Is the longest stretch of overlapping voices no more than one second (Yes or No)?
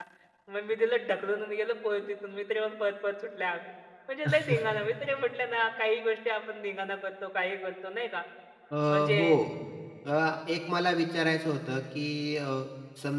Yes